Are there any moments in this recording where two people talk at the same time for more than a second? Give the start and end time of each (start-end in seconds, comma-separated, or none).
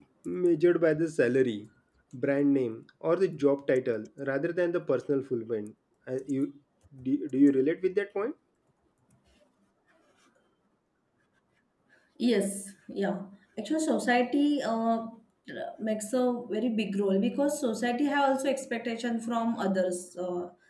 none